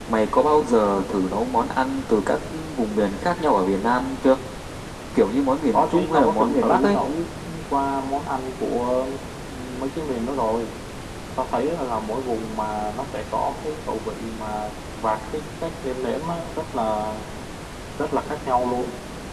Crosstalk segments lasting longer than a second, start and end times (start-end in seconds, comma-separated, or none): 5.7-7.0